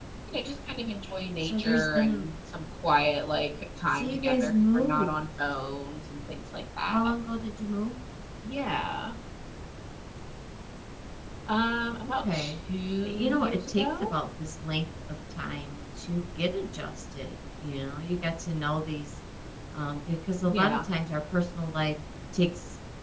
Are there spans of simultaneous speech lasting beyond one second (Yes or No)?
Yes